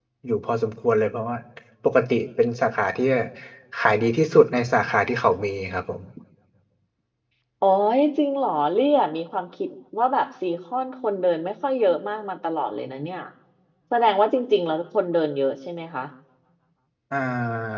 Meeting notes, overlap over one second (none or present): none